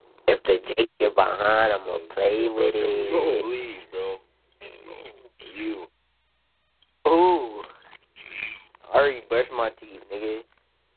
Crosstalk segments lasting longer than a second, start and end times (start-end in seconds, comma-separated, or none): 1.9-3.5